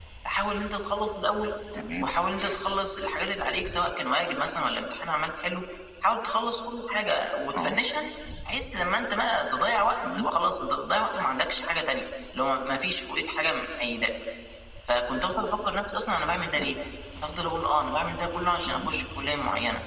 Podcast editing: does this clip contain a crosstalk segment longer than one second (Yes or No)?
No